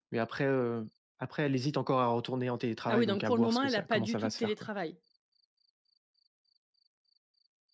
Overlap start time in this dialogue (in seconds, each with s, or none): 2.9 s